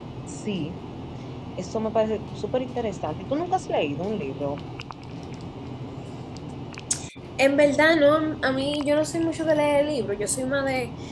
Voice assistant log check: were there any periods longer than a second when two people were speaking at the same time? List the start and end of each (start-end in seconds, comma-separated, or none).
none